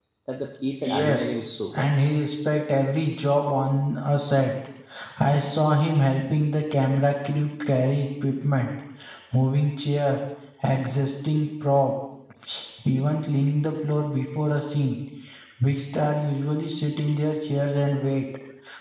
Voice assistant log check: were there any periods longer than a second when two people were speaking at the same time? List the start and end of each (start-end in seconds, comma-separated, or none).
0.8-2.2